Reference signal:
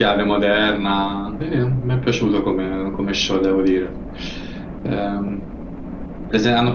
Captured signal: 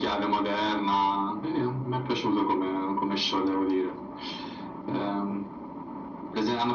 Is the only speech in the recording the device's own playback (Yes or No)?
Yes